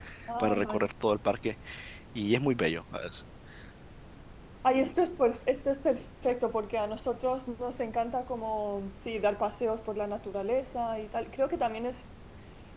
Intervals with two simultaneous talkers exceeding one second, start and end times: none

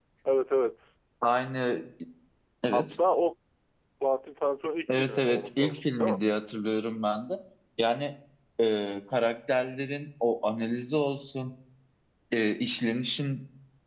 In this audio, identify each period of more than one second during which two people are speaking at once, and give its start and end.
4.9-6.2

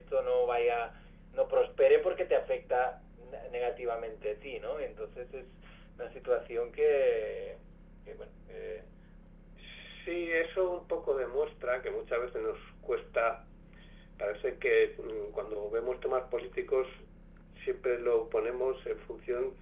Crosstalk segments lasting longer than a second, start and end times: none

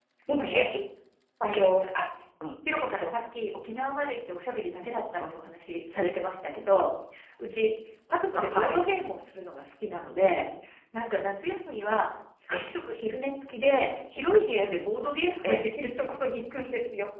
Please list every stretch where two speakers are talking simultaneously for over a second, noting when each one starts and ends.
none

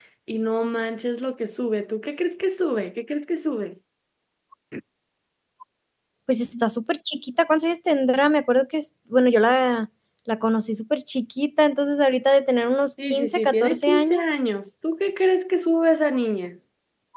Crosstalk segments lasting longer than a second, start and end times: 13.1-14.3

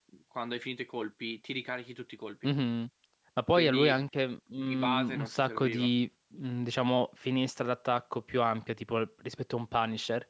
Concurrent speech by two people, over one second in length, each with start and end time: 4.6-5.9

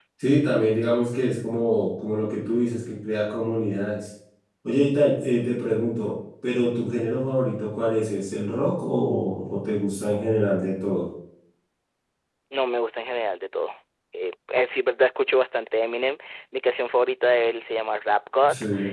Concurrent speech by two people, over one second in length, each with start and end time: none

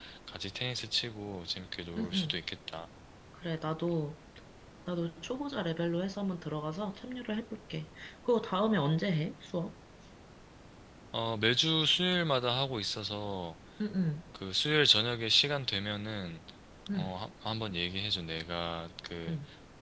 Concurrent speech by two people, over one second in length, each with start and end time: none

